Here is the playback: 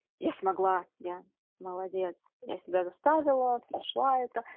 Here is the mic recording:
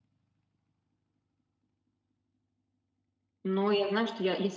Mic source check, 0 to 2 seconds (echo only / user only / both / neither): neither